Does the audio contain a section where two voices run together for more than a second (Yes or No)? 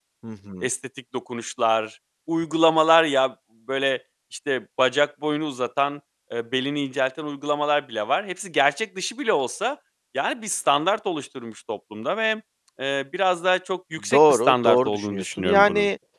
Yes